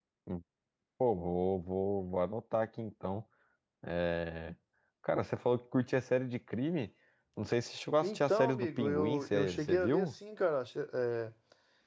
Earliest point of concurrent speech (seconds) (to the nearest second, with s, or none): 8 s